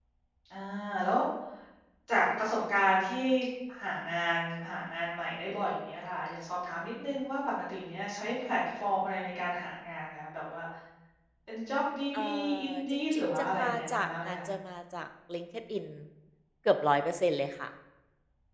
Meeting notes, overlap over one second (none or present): present